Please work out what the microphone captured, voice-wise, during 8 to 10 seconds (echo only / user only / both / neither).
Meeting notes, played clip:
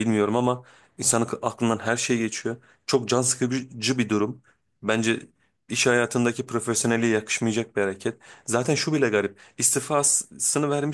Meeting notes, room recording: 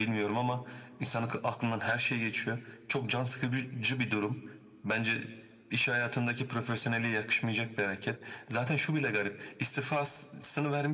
echo only